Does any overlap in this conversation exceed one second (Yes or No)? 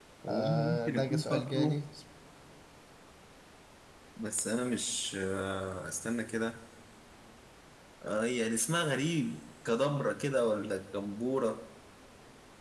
Yes